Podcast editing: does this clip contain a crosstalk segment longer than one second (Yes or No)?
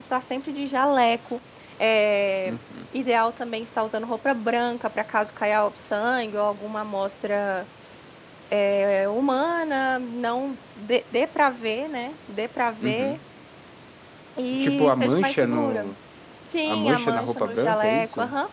Yes